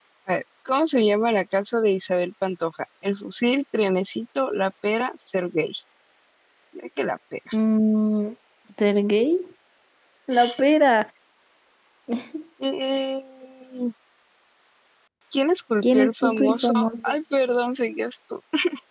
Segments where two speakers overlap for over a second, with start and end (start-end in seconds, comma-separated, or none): 15.8-17.1